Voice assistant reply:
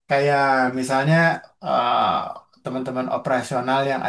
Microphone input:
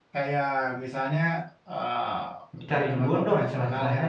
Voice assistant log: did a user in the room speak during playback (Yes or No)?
Yes